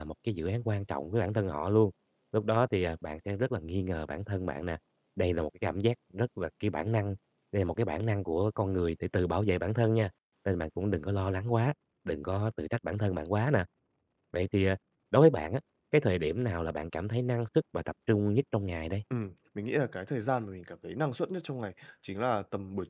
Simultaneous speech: No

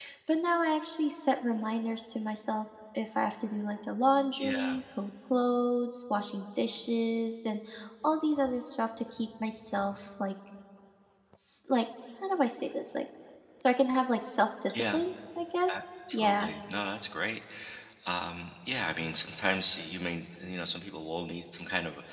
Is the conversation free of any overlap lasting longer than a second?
Yes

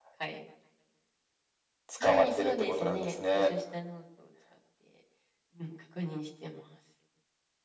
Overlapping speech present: Yes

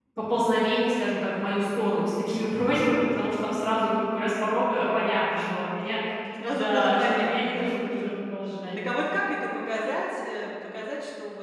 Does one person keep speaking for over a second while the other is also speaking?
Yes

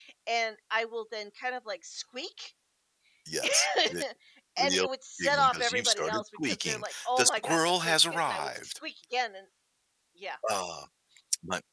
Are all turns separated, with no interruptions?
No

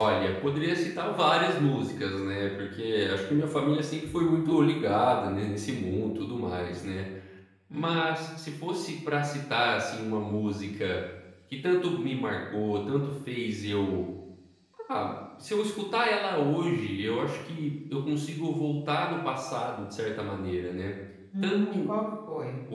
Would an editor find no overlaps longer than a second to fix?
Yes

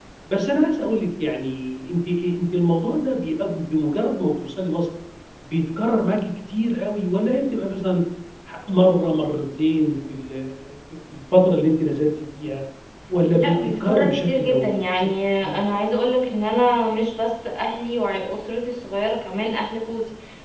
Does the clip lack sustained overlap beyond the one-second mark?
No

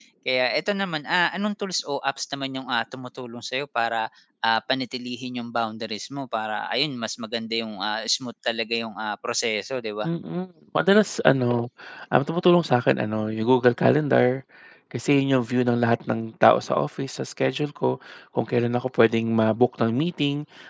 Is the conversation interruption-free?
Yes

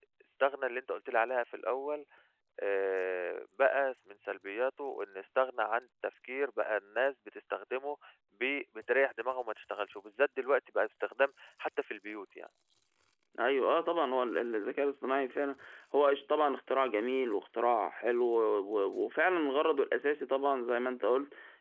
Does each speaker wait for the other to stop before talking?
Yes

